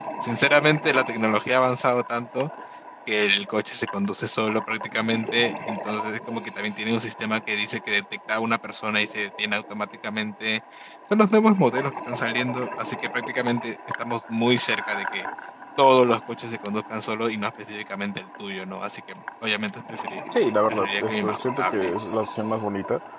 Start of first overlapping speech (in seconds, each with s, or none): 20.7 s